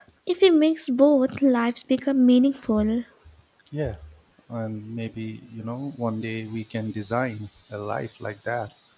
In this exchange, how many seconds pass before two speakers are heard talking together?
none

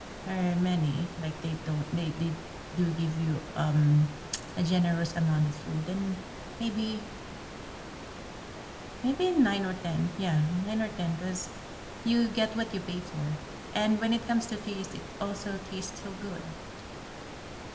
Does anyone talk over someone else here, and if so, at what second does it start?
none

